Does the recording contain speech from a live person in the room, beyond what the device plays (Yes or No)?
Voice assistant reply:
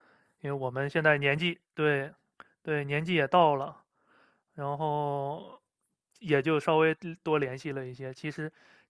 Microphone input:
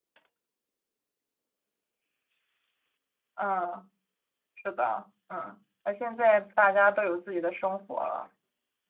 Yes